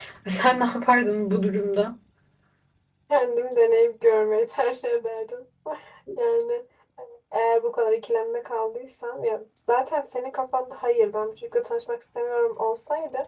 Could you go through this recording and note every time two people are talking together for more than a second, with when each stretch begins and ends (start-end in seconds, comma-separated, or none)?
none